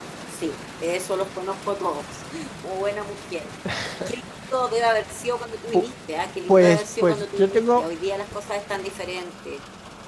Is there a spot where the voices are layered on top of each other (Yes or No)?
Yes